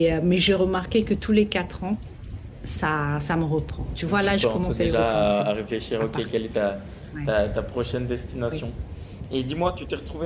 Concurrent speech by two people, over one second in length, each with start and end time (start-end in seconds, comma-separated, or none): 4.2-5.5